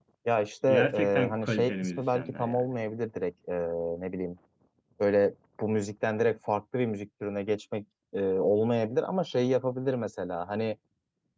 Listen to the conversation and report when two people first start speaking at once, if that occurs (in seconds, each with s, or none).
0.7 s